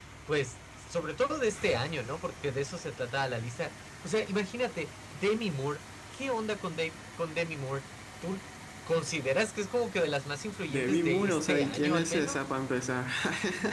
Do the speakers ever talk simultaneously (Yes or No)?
Yes